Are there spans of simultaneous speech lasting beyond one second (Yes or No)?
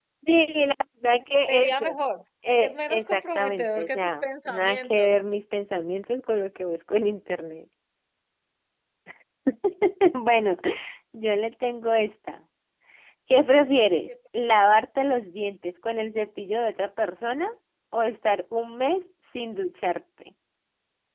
Yes